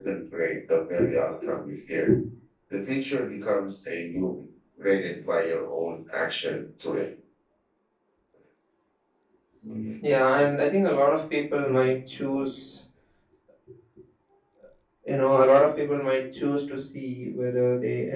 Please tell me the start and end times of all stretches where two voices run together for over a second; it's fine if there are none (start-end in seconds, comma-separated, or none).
none